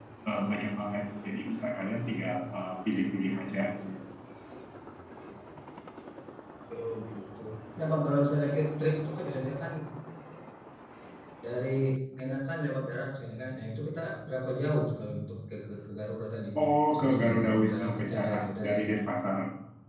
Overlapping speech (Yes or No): Yes